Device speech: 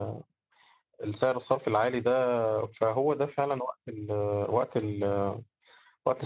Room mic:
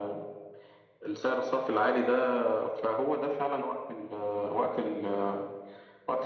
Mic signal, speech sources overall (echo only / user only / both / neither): echo only